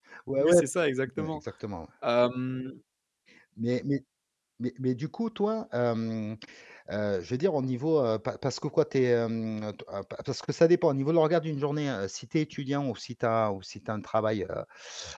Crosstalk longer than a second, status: none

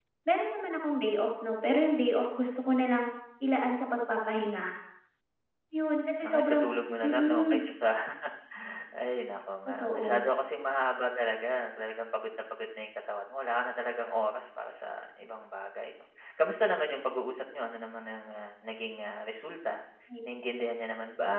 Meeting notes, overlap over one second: none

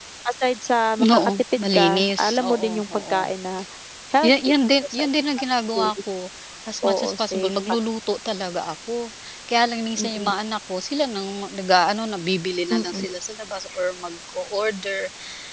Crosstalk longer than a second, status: present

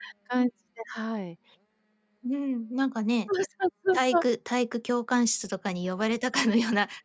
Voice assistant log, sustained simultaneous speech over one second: none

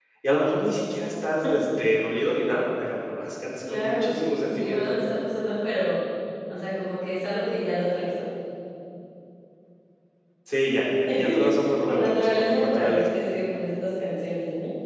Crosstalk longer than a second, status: present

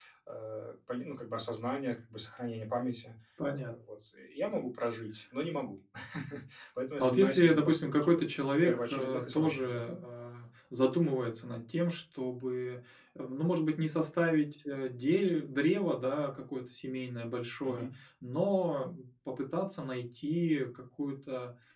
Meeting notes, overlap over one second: present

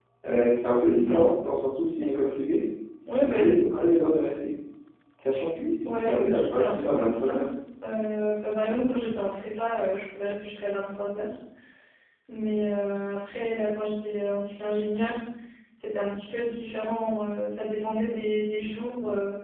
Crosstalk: present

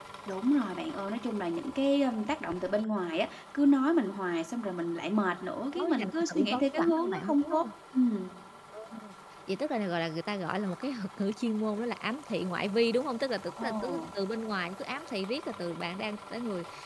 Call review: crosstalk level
present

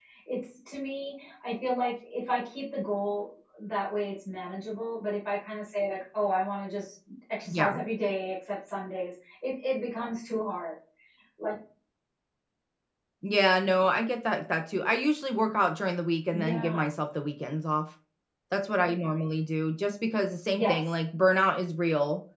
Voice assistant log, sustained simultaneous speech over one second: none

